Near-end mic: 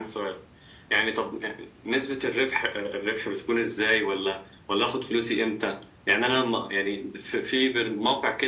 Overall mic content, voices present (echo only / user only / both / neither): echo only